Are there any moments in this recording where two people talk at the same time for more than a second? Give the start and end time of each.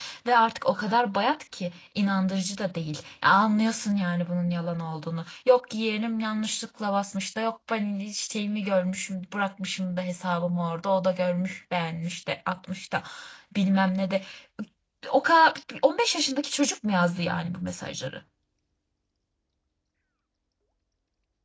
none

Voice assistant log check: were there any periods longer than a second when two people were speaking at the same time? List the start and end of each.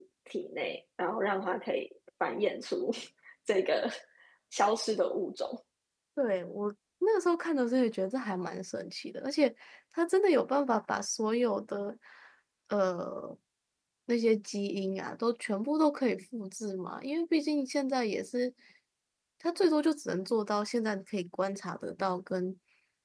none

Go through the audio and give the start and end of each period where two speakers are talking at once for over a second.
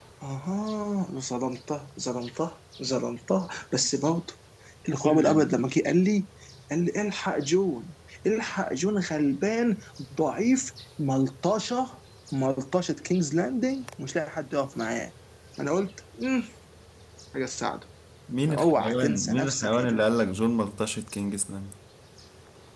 18.5-20.0

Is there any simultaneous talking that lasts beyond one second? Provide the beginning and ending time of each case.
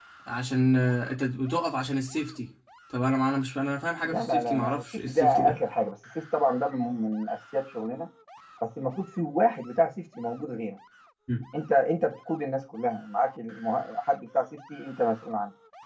4.0-5.6

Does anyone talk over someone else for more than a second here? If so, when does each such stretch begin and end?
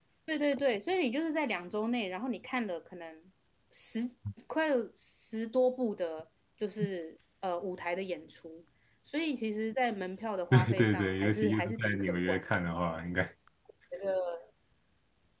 10.5-12.7

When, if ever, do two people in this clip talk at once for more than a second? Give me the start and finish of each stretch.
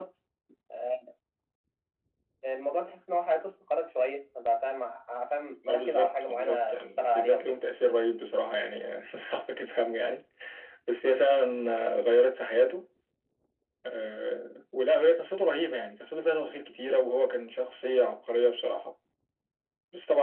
5.7-7.5

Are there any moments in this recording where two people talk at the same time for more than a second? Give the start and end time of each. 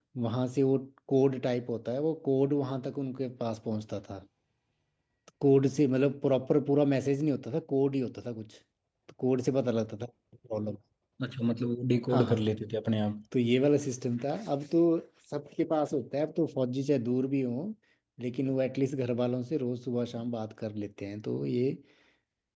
none

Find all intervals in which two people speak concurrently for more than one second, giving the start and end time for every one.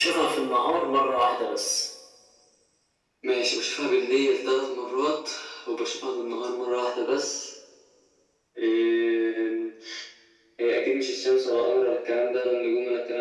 none

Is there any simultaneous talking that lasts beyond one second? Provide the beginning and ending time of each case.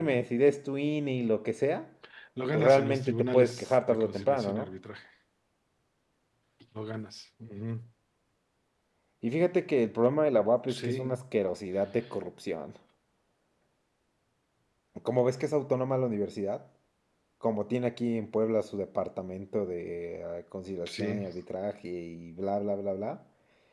2.5-4.7

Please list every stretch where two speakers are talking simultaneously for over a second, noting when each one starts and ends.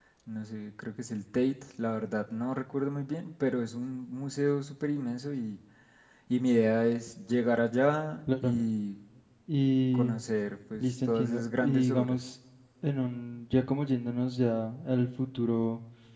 10.8-12.2

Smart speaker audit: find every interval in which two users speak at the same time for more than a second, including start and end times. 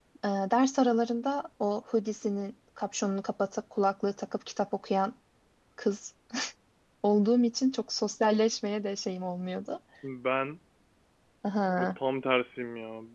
none

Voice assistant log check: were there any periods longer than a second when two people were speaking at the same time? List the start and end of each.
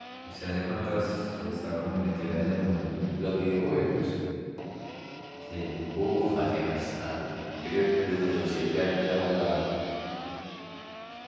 none

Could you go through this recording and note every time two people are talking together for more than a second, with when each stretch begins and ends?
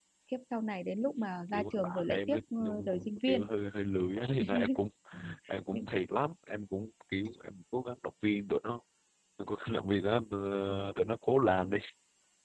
1.5-3.5

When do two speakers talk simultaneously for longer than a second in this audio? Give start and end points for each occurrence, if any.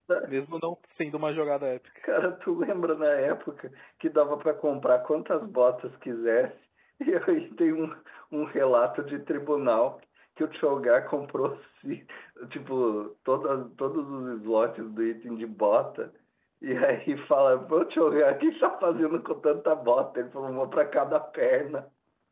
none

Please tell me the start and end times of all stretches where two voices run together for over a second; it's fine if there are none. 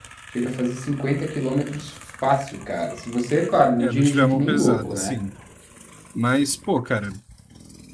3.8-5.1

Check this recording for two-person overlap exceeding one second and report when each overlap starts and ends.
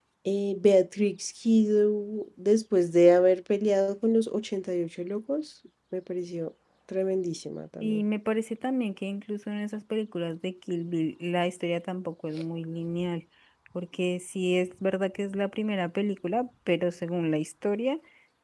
none

